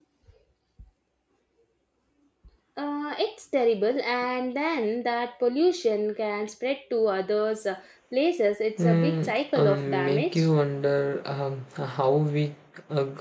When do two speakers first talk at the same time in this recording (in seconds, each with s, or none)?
8.8 s